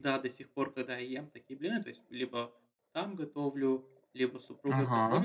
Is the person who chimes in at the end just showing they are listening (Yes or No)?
Yes